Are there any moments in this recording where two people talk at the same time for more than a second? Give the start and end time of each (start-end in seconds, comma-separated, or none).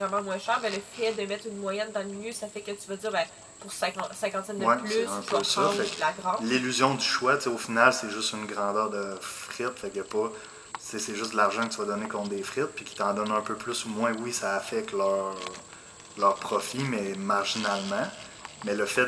4.6-5.9